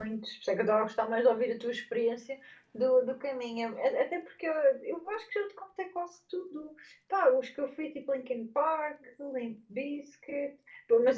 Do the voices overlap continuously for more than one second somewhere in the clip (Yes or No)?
No